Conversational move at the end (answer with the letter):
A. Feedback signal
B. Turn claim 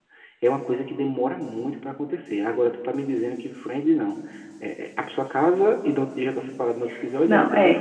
B